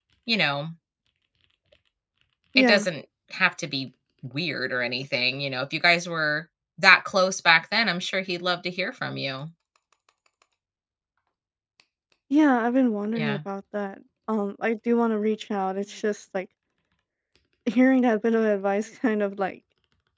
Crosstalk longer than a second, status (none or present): none